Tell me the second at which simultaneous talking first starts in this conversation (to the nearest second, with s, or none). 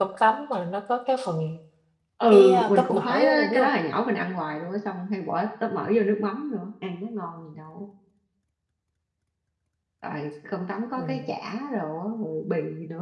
2 s